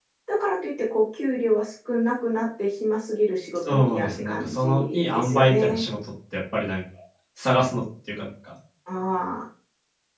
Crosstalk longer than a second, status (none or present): present